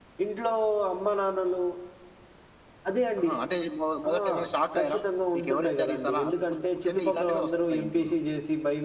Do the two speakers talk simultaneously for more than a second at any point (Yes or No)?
Yes